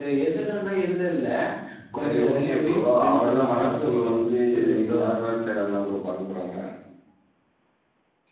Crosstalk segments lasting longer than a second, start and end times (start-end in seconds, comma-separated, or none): 2.0-4.1